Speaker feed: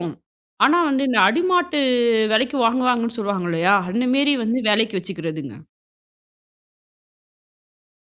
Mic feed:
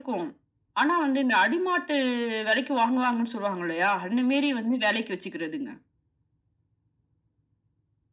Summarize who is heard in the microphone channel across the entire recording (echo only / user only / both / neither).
echo only